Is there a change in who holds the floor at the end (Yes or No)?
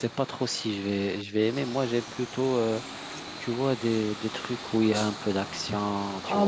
Yes